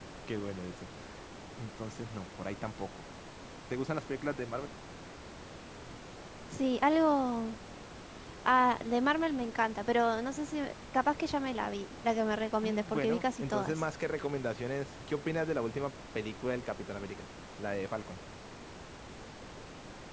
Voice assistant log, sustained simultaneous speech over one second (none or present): present